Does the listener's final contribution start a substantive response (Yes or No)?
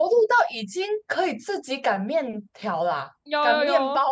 Yes